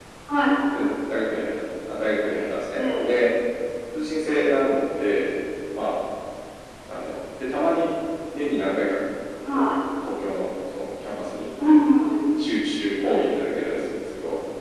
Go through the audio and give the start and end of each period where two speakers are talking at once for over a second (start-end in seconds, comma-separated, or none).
none